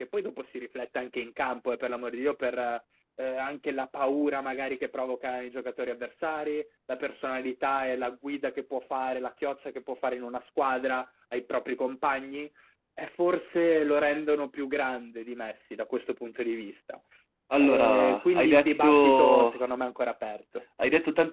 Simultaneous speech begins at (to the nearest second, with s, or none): 18 s